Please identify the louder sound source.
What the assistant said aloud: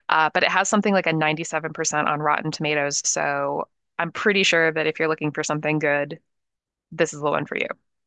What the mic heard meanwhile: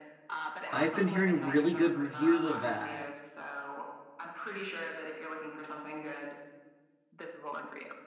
user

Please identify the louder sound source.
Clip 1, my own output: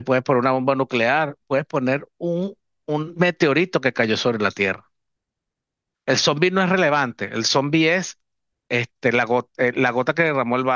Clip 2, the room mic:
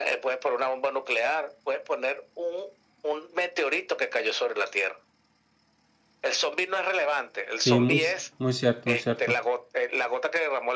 user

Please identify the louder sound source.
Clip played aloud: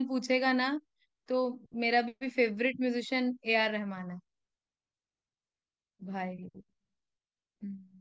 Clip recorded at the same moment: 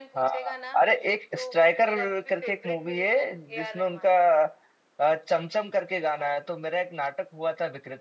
user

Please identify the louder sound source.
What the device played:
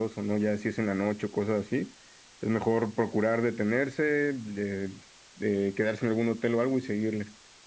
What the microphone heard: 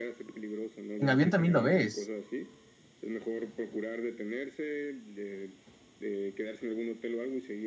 user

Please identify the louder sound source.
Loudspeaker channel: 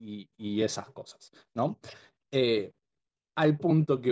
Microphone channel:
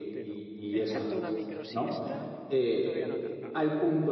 echo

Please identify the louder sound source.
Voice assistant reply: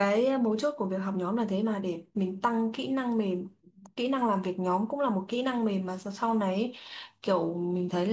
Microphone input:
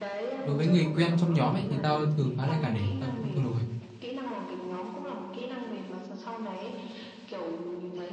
user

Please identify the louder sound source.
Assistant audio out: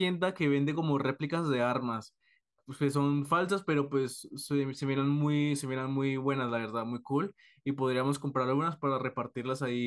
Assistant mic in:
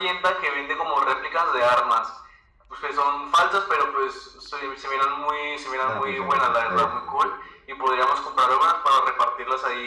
echo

